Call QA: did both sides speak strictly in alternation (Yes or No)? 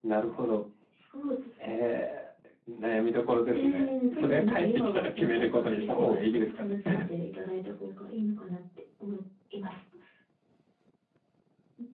No